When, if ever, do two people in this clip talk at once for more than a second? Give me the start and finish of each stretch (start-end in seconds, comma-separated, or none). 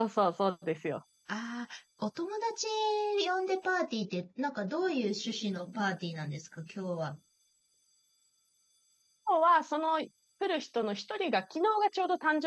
none